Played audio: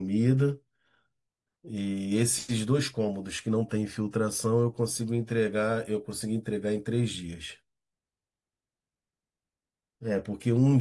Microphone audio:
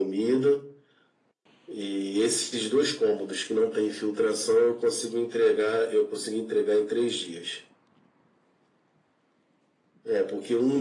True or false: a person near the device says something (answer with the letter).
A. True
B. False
B